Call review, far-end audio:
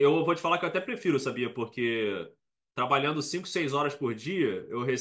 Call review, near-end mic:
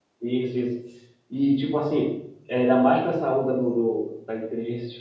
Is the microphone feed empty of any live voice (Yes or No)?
No